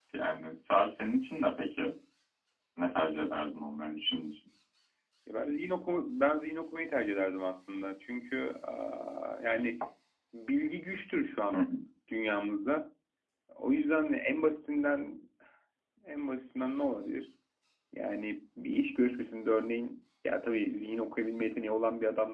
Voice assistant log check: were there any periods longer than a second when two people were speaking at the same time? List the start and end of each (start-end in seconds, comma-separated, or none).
none